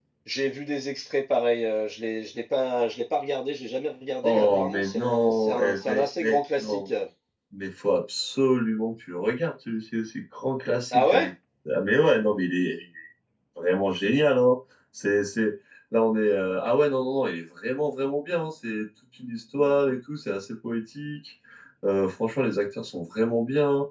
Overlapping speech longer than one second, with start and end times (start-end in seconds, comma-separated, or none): 4.2-6.9